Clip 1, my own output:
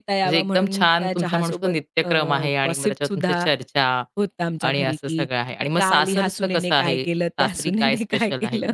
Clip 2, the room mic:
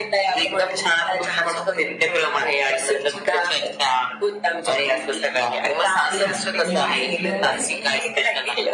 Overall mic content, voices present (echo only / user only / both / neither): both